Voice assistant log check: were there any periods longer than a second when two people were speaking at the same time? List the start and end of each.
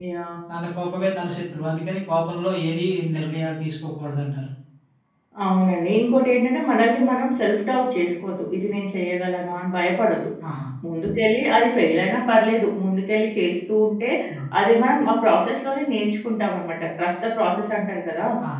none

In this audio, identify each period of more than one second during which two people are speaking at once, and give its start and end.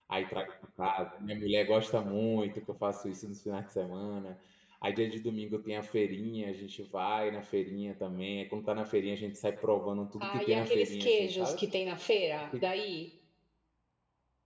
10.2-11.6

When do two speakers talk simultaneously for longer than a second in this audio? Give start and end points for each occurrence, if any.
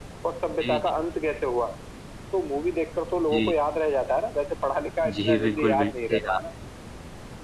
5.0-6.4

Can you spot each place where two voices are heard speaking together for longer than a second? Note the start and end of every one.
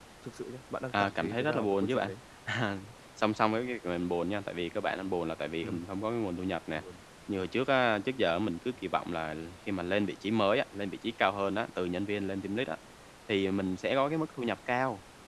0.9-2.1

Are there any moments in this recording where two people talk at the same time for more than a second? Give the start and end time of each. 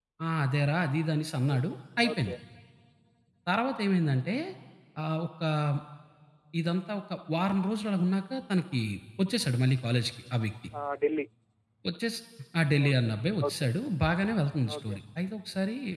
none

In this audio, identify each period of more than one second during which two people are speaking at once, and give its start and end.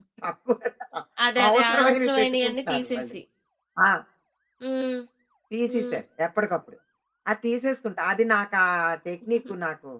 1.5-3.1

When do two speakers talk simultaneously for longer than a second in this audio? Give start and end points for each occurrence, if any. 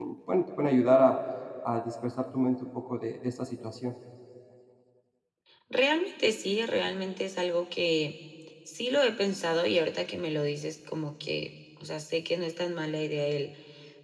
none

